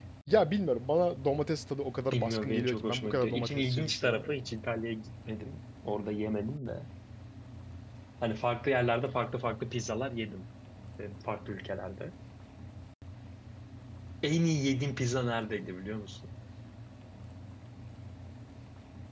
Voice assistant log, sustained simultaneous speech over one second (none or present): present